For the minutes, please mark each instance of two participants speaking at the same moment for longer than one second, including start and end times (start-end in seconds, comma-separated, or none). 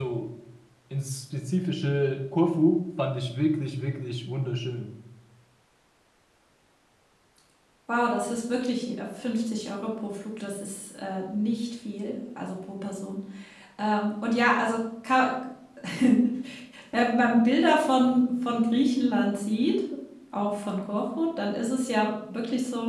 none